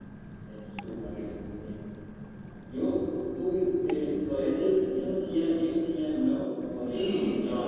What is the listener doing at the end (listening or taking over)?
taking over